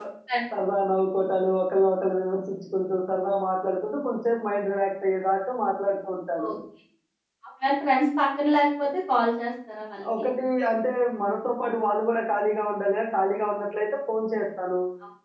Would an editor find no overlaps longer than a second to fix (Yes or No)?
Yes